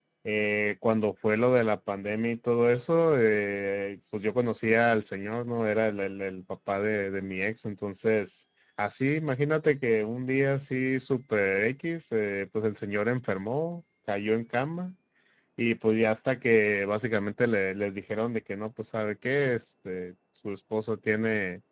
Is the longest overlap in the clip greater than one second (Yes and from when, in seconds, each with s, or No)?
No